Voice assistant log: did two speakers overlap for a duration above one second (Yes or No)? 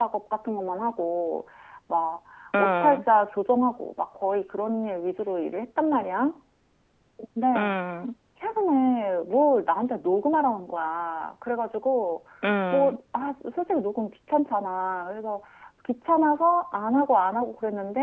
No